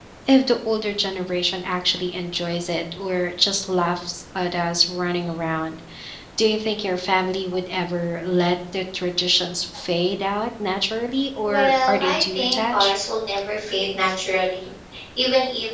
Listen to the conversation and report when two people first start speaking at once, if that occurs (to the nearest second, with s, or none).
11 s